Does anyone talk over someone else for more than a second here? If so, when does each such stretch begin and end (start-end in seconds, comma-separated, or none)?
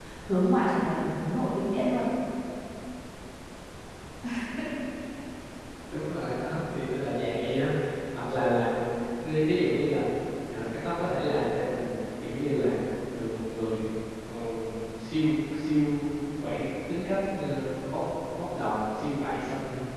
none